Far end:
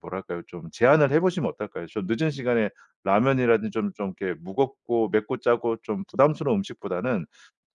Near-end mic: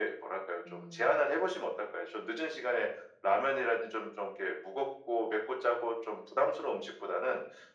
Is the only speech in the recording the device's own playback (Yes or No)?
No